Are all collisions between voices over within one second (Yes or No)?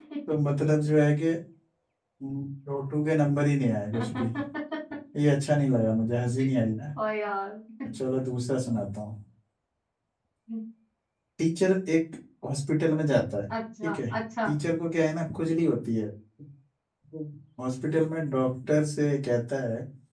Yes